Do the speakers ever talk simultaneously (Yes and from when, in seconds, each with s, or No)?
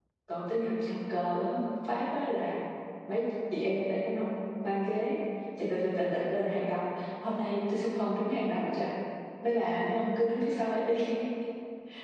No